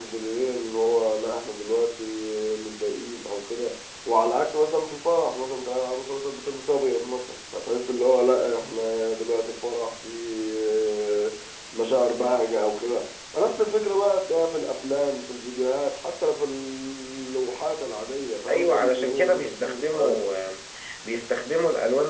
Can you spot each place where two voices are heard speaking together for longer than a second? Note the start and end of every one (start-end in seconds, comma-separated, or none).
18.5-20.3